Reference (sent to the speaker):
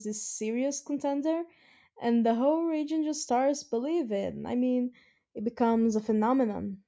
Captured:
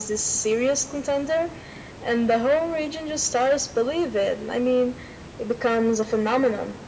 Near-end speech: none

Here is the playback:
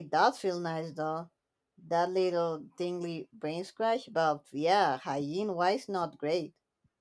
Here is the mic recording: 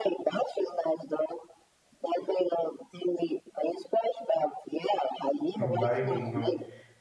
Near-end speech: present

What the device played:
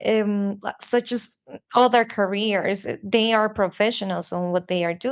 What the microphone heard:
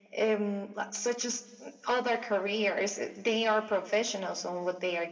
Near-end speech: none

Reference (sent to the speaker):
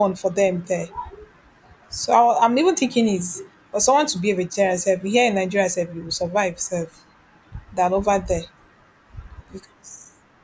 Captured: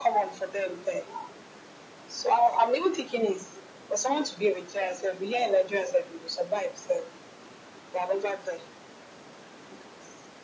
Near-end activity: none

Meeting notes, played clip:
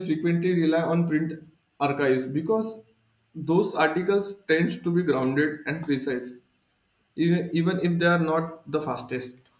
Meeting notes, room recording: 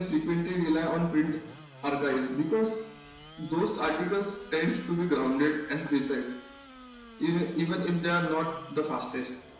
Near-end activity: none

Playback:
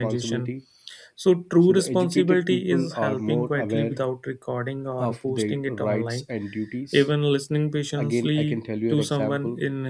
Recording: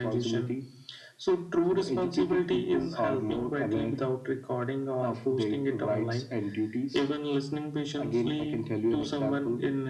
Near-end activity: none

